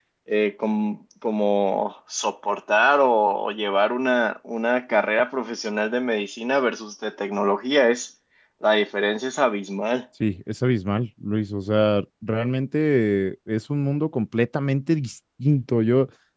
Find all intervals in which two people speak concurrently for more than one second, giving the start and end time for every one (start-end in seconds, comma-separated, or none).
none